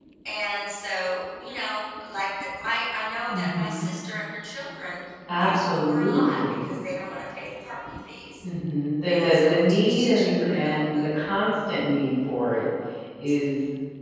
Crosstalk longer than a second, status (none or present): present